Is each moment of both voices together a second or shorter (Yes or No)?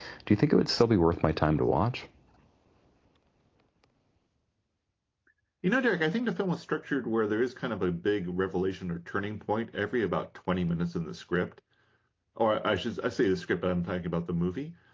Yes